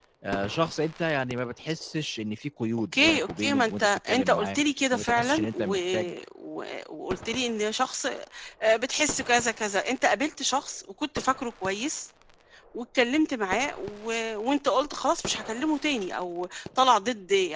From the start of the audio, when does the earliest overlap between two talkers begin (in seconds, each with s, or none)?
2.9 s